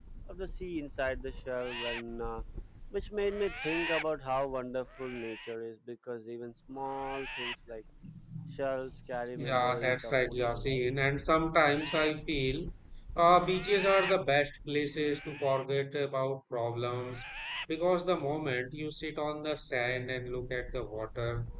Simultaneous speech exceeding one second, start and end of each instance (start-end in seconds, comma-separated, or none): 9.4-10.8